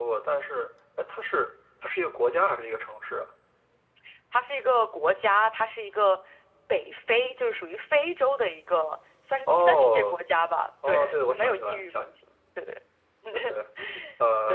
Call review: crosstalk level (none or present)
present